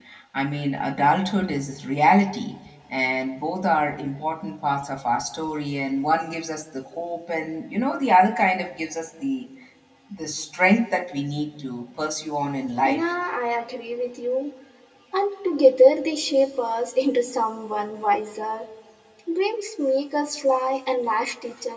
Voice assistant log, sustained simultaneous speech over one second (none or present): none